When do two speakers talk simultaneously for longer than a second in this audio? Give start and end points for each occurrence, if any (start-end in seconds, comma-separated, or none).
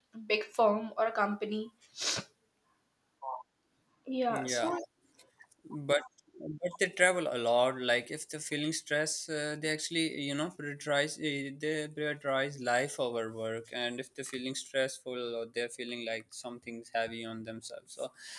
none